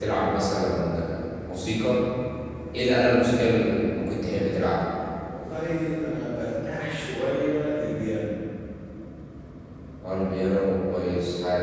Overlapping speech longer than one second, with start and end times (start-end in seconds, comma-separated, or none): none